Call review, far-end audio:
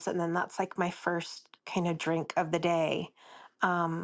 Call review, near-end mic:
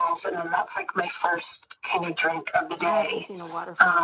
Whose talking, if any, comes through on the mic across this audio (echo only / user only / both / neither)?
both